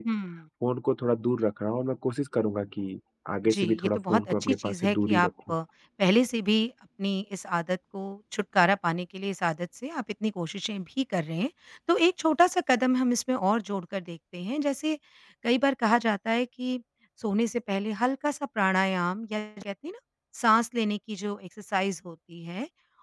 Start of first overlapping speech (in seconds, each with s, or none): 3.5 s